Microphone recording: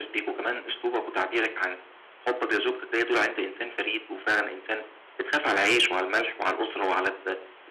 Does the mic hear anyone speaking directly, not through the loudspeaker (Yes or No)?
No